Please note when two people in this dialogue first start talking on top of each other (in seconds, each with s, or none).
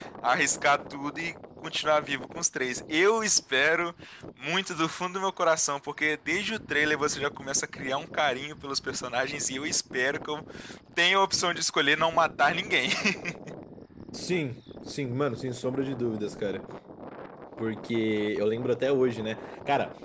none